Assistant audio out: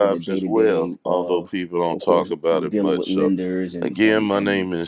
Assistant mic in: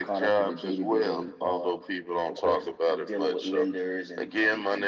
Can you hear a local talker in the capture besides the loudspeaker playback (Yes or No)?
No